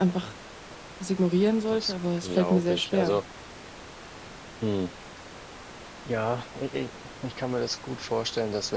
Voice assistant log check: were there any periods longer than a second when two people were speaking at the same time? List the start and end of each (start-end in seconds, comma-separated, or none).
1.7-3.2